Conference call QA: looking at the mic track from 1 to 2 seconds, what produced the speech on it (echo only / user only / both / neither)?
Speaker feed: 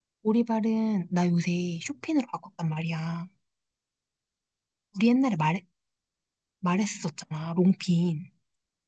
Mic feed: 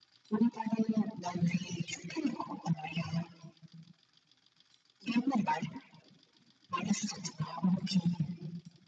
echo only